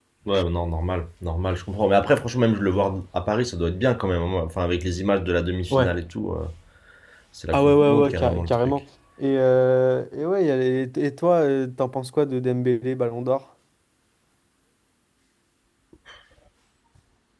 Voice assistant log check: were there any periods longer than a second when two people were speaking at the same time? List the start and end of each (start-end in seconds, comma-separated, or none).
7.5-8.8